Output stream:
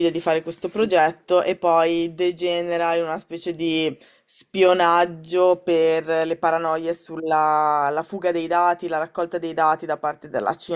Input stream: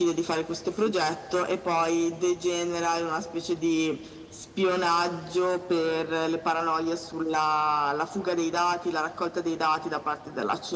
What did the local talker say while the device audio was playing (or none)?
none